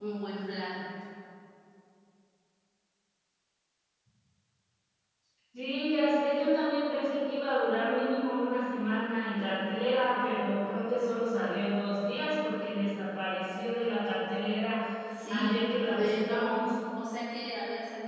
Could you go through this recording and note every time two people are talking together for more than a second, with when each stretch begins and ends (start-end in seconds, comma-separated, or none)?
15.3-16.6